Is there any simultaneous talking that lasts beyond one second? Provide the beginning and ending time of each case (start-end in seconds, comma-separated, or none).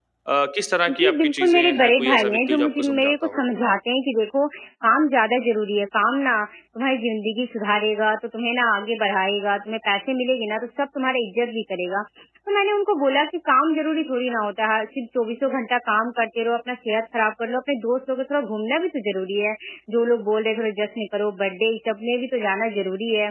0.9-3.4